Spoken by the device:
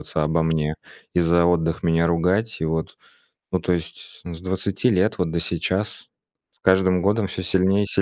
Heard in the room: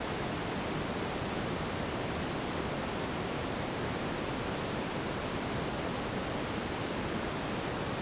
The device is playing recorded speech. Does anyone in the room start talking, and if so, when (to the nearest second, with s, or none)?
none